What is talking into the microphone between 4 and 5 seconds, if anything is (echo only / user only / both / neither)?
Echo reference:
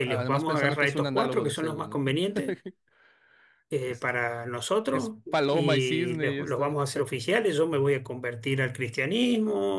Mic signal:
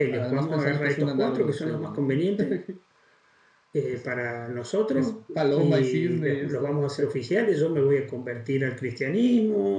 echo only